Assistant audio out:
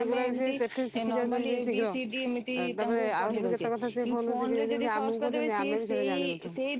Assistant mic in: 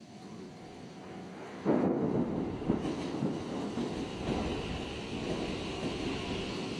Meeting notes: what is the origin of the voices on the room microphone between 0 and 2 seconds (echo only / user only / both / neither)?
neither